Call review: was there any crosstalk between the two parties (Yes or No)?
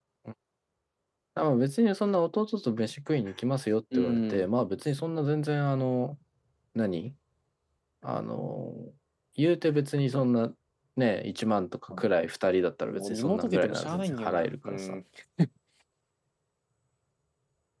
Yes